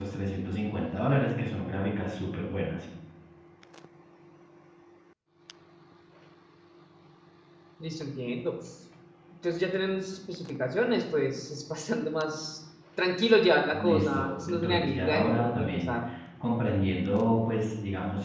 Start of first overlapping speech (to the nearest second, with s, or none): 14 s